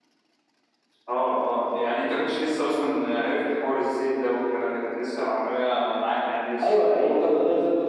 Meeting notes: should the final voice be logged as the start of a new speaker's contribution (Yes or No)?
Yes